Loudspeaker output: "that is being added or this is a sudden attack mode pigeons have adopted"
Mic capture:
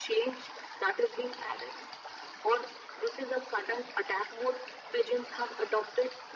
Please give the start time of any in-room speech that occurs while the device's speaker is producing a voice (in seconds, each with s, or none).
none